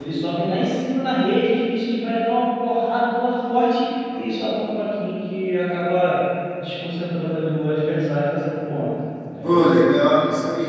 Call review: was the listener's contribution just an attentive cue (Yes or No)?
No